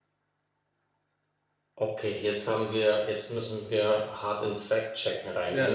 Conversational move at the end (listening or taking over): taking over